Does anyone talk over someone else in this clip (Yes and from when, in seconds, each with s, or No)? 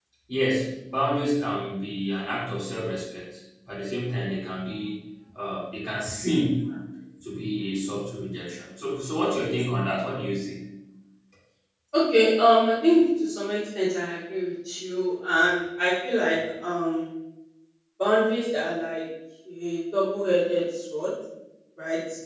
No